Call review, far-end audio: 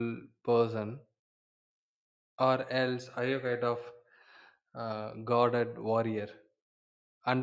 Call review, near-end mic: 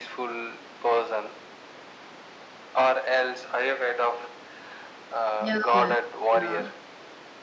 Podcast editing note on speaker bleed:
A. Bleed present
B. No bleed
A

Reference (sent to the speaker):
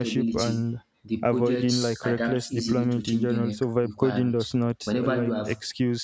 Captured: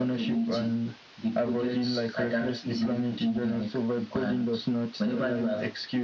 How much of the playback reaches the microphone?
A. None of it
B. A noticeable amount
B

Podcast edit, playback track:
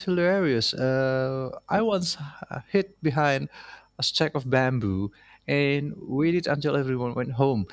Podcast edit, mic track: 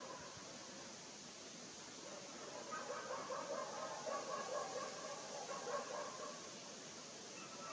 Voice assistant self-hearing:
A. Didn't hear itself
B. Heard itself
A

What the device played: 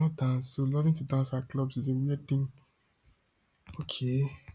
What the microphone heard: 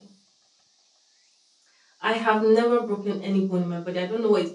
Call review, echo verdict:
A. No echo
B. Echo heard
A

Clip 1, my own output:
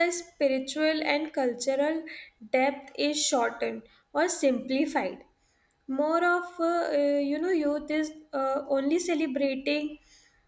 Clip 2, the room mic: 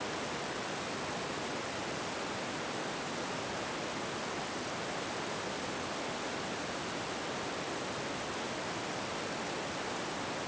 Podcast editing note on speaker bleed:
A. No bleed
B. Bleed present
A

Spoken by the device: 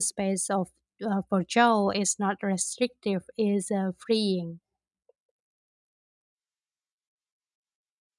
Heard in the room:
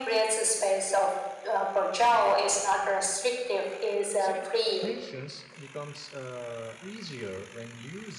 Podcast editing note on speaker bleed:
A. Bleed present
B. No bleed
A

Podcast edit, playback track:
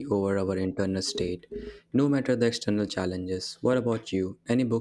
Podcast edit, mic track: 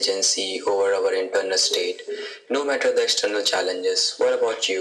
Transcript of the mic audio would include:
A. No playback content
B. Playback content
B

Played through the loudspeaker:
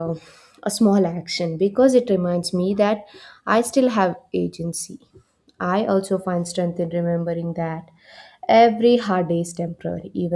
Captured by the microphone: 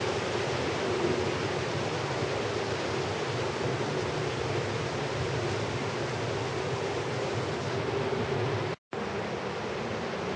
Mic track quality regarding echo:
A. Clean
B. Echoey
A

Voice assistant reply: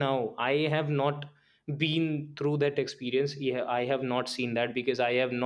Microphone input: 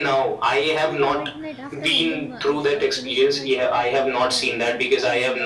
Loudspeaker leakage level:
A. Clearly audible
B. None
A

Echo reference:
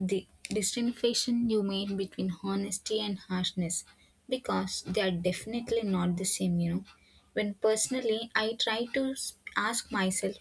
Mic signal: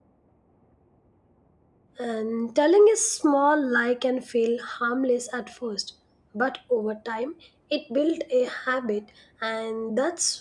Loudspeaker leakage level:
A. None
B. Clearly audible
A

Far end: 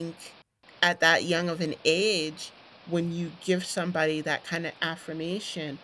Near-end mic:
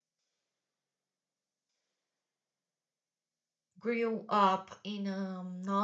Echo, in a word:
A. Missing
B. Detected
A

